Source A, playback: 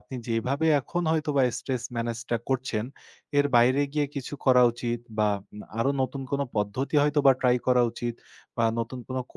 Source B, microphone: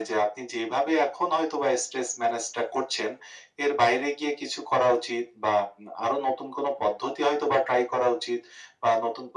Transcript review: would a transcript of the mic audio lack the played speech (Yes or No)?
No